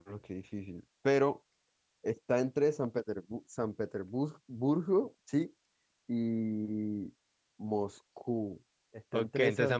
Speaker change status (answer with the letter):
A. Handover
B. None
A